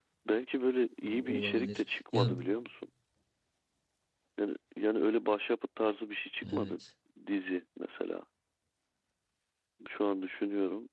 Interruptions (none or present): present